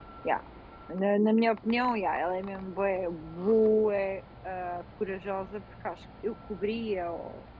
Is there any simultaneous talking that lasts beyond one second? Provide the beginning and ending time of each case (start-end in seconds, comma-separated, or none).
none